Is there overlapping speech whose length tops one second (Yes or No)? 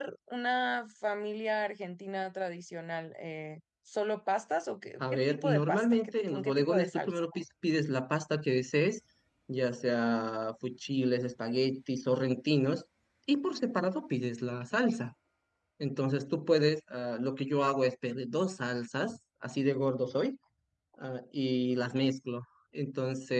Yes